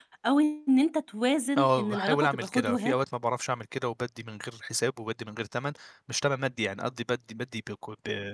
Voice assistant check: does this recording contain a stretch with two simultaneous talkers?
Yes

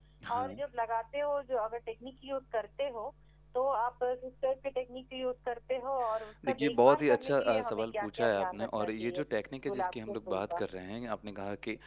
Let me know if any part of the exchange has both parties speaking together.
Yes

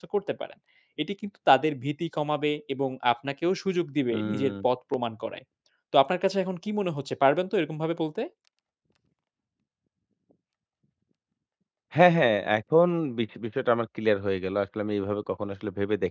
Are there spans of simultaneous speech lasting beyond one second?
No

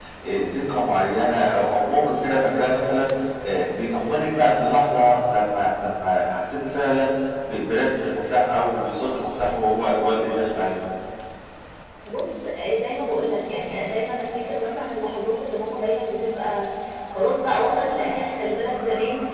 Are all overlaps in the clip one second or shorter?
Yes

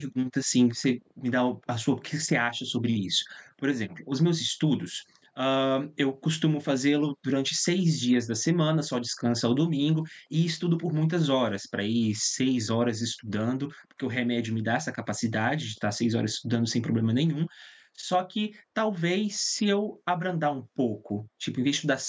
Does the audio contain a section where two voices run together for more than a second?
No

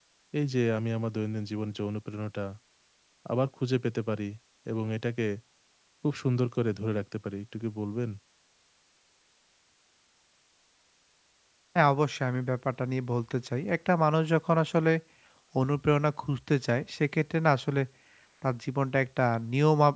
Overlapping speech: No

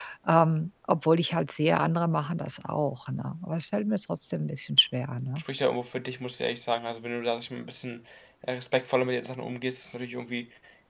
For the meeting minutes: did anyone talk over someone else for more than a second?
No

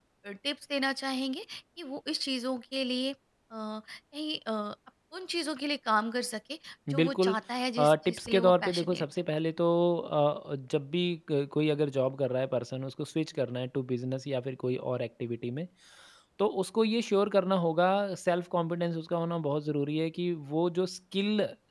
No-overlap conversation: No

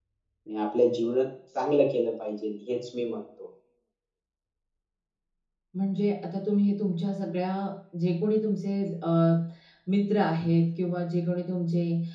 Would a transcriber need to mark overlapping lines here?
No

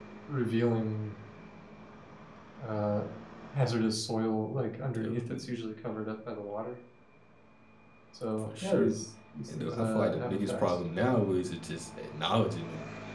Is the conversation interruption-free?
No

